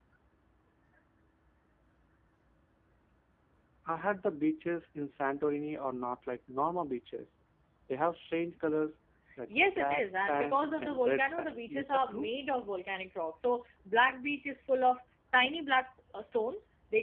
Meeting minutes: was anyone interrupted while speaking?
Yes, from 9.8 s

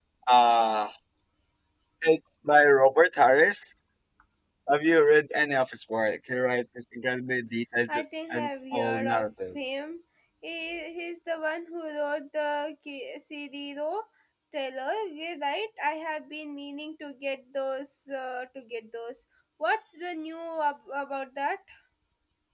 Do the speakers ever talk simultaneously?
Yes, from 7.9 s

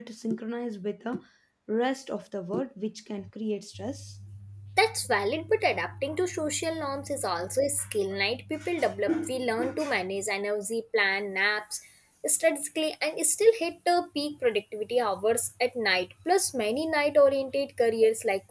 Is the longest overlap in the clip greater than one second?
No

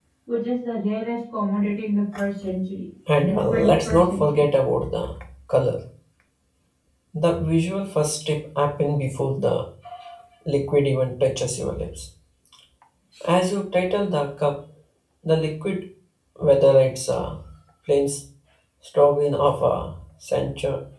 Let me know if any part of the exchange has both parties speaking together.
Yes, from 3.2 s

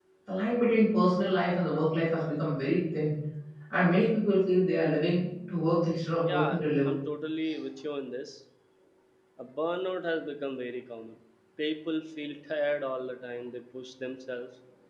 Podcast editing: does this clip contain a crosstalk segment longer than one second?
No

